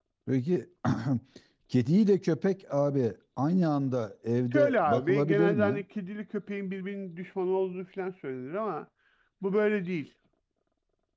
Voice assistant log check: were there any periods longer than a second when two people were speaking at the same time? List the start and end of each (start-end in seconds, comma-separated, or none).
4.5-5.8